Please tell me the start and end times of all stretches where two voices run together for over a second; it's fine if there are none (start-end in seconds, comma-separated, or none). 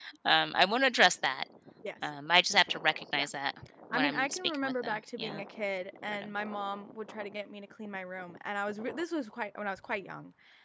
3.9-5.4